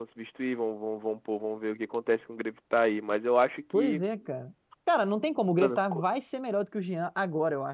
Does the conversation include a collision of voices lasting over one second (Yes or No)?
No